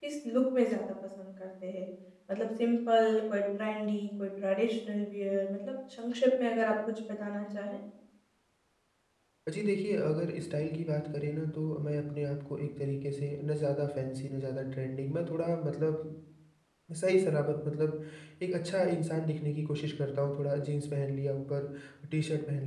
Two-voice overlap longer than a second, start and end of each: none

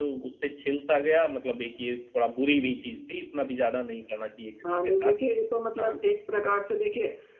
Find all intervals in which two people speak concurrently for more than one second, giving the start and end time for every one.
none

